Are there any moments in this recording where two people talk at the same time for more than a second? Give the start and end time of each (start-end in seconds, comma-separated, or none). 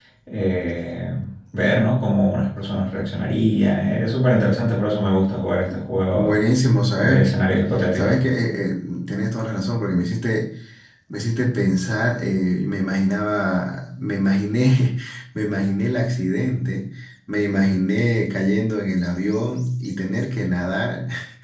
none